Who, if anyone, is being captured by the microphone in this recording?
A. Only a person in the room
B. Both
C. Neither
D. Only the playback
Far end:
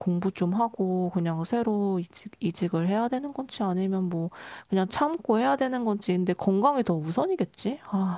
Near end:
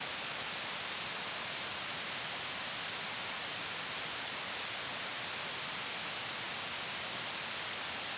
C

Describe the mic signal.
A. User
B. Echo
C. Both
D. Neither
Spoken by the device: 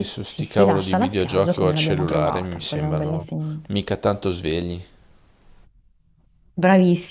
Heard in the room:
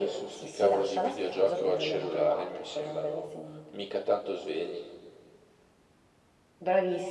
B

